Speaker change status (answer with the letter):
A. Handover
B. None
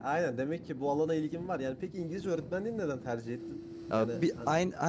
A